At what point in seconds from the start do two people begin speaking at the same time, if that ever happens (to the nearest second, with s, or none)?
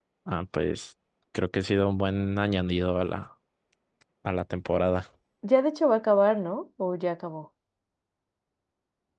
none